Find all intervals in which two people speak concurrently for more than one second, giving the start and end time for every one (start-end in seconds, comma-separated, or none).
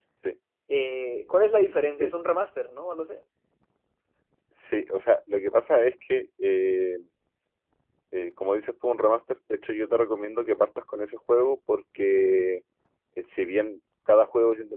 none